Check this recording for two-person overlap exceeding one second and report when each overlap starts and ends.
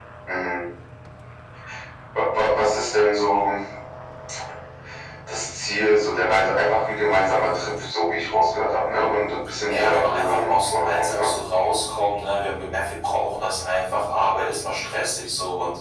9.7-11.3

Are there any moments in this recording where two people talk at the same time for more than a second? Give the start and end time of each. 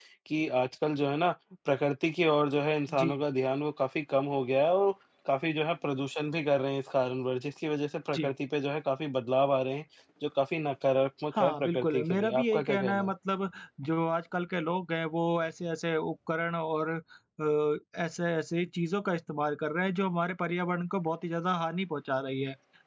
11.3-13.1

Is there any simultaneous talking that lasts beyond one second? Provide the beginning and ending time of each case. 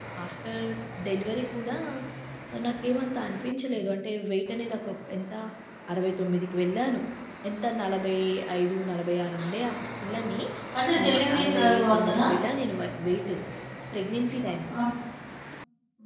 11.0-12.2

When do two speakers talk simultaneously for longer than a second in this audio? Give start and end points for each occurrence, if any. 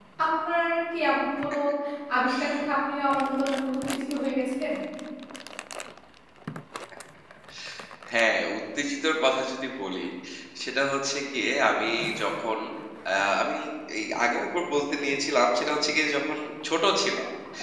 none

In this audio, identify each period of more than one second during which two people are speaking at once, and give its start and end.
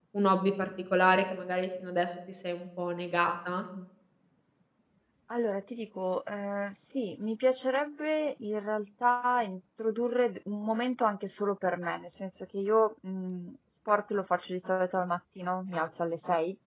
none

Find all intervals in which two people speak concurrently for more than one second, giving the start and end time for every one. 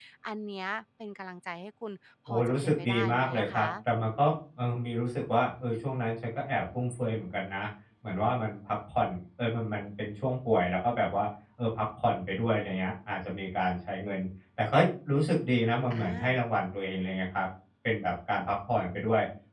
2.3-3.7

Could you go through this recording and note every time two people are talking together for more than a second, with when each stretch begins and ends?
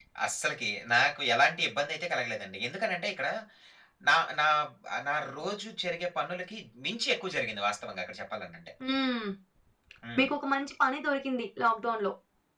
none

